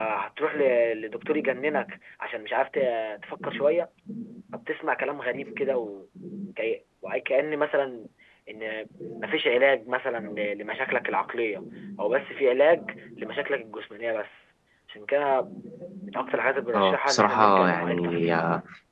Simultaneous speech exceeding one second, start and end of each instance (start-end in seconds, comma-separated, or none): 16.7-18.3